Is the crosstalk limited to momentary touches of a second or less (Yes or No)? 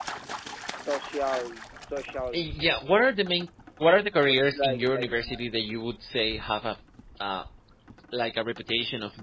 No